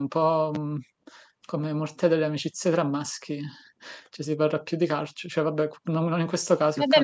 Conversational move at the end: taking over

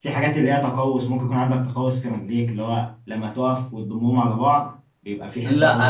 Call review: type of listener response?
taking over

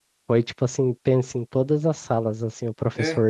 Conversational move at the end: listening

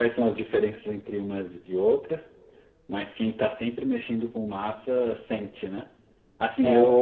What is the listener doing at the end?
listening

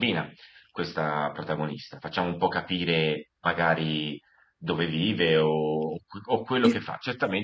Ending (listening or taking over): listening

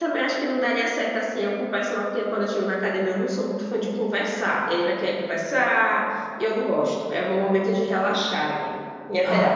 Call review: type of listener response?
taking over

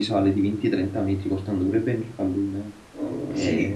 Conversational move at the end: taking over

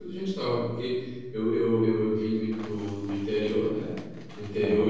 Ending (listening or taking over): listening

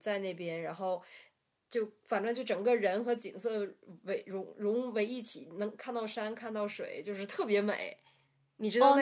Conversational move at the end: taking over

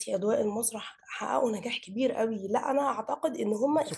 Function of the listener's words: taking over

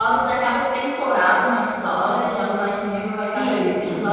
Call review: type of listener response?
taking over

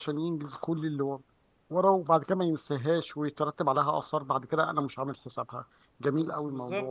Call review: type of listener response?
taking over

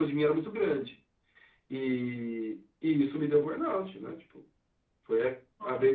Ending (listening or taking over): listening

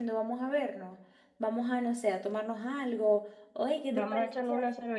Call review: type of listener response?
taking over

